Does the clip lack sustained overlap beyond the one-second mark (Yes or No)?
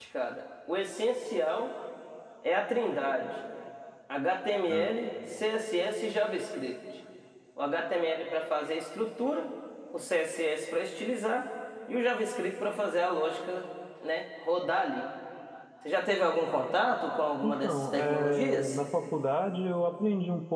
No